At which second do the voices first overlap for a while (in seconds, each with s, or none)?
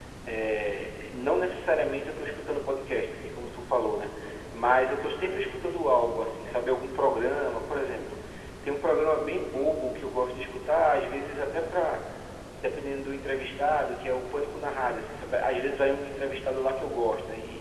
none